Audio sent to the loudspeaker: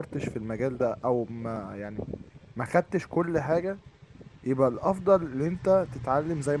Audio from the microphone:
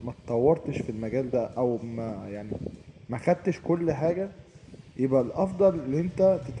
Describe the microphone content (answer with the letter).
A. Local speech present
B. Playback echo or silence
B